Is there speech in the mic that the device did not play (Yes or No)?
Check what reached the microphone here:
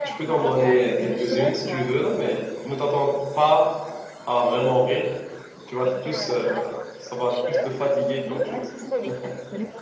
Yes